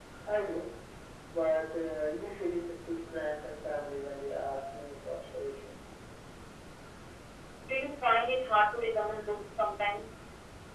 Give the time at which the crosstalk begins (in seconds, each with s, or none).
none